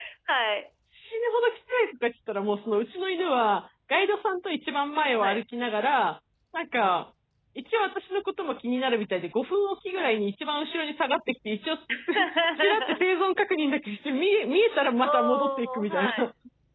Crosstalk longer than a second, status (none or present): present